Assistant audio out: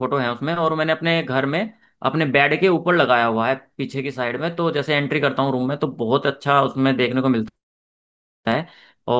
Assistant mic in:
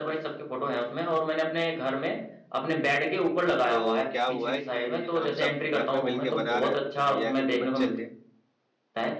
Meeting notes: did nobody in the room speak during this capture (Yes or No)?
No